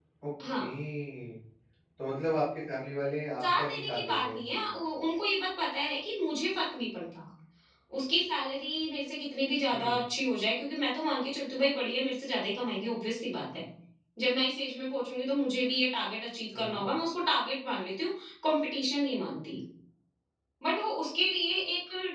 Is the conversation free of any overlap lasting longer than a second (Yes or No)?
No